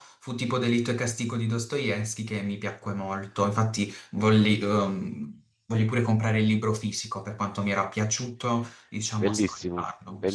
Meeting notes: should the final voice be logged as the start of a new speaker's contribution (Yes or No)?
Yes